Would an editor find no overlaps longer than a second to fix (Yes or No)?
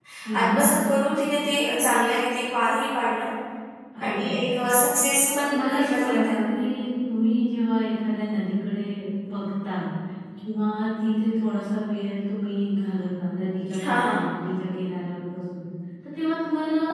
No